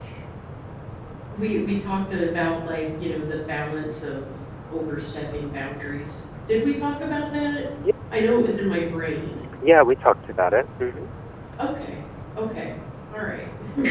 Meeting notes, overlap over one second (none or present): none